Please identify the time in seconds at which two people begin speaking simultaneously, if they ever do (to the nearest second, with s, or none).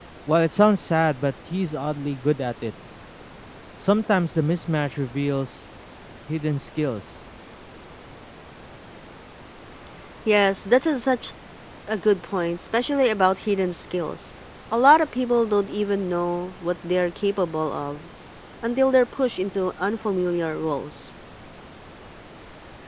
none